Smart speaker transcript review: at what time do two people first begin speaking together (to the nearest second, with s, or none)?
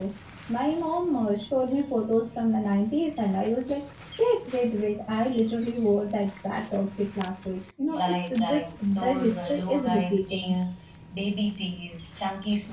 8 s